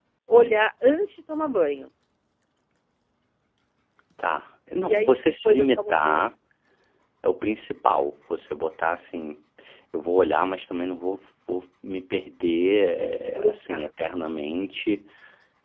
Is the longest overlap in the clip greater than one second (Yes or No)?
Yes